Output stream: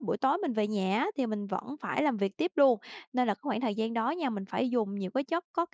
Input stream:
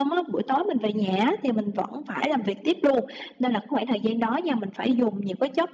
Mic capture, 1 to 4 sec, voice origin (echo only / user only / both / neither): echo only